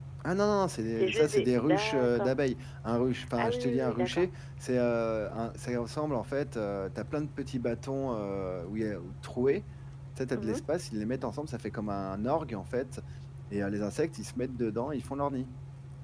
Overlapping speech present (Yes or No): Yes